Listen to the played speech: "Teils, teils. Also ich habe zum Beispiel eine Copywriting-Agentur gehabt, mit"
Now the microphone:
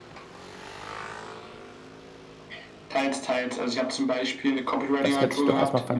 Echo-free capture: No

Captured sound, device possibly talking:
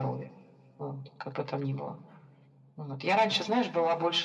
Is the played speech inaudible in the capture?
No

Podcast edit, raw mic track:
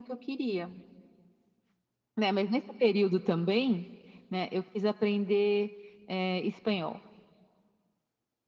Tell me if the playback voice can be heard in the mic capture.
Yes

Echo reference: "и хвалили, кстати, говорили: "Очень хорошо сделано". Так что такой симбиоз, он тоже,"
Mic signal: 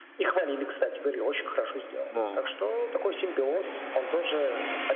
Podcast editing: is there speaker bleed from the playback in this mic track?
Yes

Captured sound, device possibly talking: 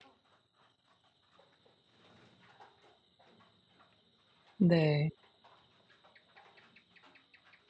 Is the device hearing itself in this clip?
No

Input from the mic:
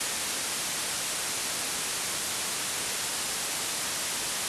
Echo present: No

